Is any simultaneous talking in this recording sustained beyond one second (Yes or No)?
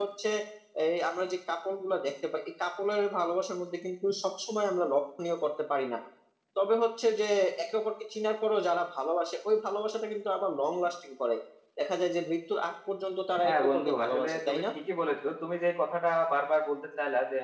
Yes